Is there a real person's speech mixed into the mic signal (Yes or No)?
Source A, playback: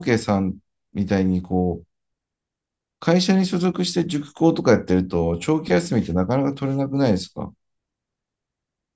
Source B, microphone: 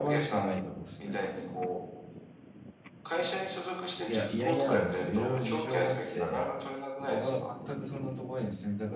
Yes